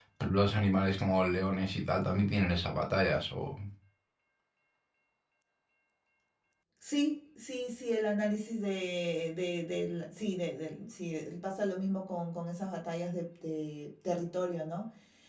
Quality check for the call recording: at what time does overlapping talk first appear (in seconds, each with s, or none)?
none